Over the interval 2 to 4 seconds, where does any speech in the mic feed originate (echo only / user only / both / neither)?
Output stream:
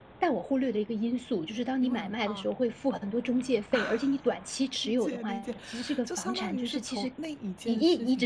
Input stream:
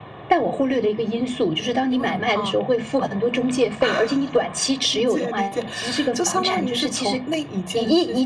echo only